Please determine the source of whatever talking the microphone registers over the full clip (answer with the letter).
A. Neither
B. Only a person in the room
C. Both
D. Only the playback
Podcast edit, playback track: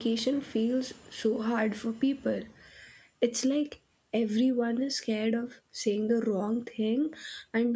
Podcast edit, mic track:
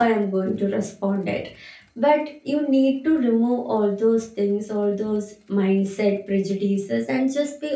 B